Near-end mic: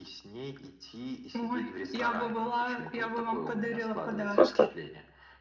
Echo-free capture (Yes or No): No